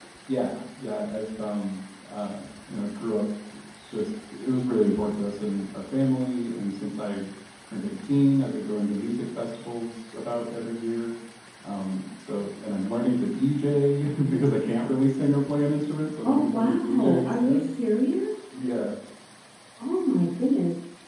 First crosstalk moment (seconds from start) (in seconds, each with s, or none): 16.2 s